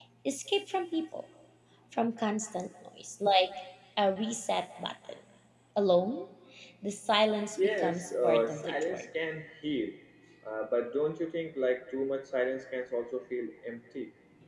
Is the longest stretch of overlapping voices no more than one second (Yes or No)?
No